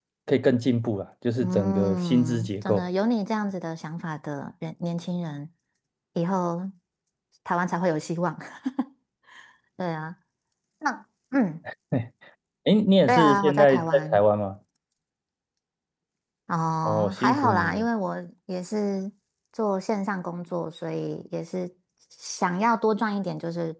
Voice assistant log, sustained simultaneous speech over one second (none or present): present